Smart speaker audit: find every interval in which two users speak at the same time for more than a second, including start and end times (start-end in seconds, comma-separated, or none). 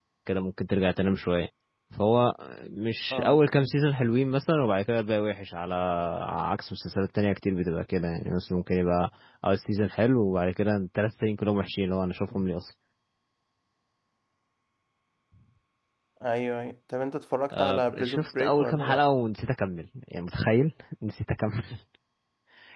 17.6-19.0